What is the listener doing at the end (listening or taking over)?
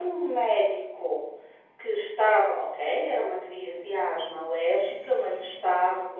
listening